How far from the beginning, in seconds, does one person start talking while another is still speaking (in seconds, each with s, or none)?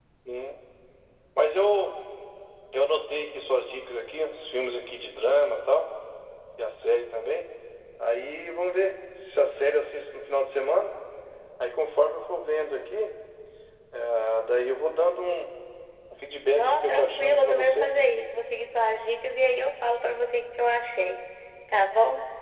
16.5 s